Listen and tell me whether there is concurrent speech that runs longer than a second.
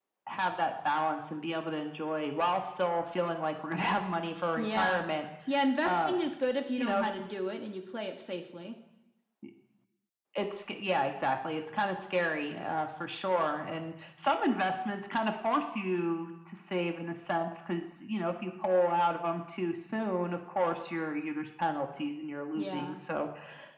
No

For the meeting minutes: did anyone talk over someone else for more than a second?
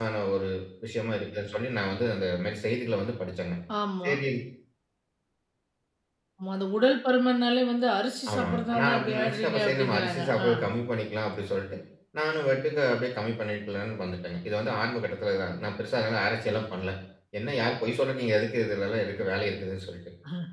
Yes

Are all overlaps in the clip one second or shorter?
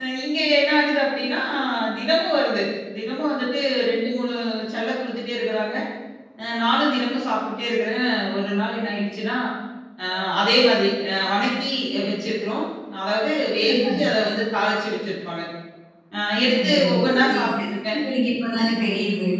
No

